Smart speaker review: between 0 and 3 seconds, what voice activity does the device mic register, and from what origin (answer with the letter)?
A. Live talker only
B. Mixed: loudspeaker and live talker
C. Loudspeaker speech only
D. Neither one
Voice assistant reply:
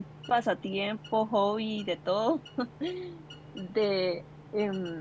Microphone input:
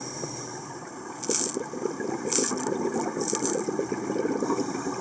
D